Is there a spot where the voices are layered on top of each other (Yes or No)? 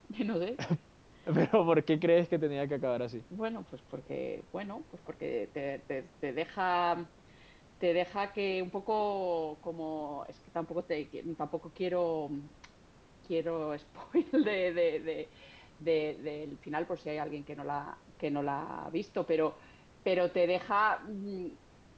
No